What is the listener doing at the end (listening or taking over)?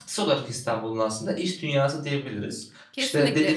taking over